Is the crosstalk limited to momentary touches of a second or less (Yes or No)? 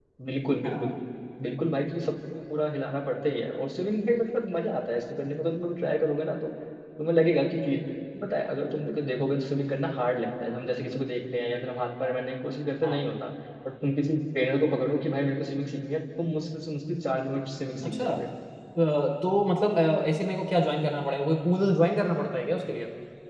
Yes